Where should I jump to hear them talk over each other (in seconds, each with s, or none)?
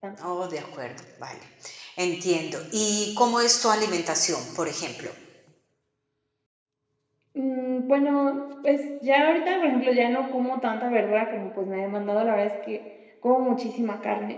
none